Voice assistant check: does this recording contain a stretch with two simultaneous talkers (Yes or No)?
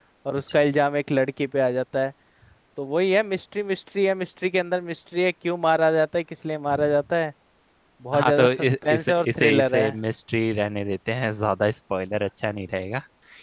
Yes